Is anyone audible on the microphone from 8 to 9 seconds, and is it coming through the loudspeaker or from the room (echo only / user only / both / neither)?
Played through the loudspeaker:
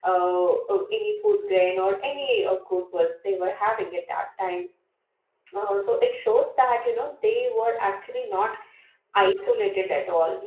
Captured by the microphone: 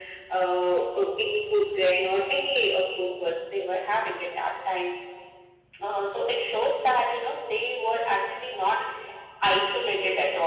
echo only